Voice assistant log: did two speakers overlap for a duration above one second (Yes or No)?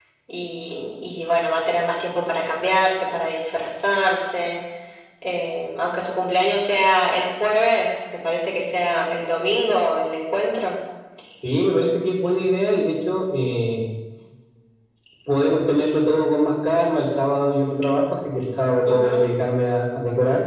No